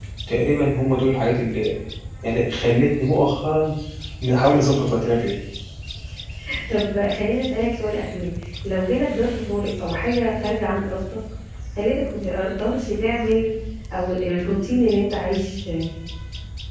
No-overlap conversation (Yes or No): Yes